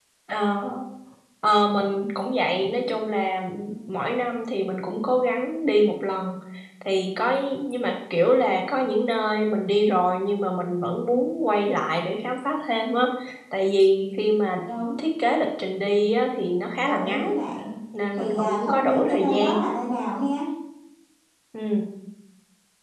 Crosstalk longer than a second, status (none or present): present